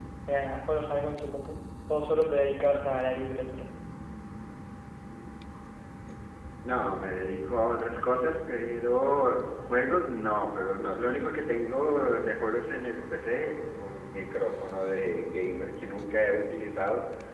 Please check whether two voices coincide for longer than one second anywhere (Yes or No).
No